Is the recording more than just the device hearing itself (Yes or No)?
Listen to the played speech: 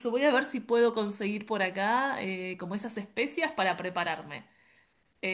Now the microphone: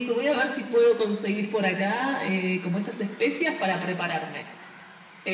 No